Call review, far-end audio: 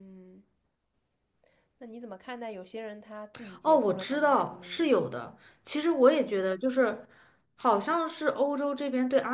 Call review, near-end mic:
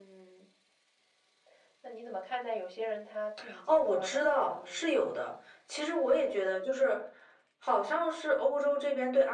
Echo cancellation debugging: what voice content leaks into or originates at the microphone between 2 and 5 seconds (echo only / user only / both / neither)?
echo only